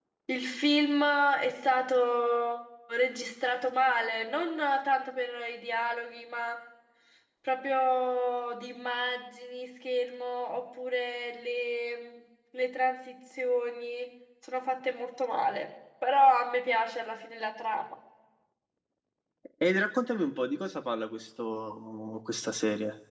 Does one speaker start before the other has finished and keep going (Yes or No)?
No